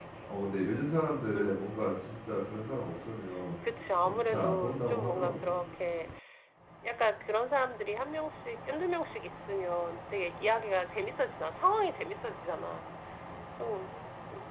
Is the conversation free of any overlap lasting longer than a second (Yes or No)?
No